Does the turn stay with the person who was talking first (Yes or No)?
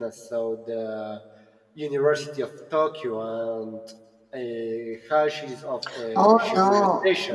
No